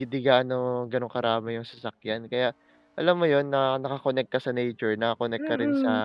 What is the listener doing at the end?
taking over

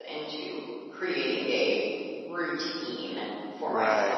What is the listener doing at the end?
taking over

